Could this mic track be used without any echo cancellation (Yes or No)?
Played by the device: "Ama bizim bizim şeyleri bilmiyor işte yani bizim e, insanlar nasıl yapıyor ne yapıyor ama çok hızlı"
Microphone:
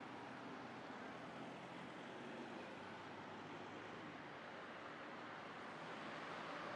Yes